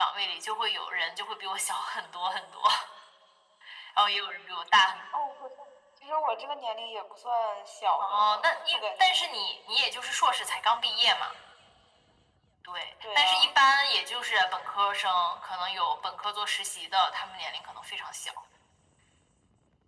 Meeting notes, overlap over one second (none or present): present